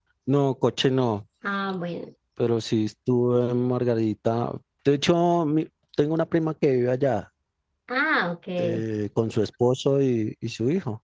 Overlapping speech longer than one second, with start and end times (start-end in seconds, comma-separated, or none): none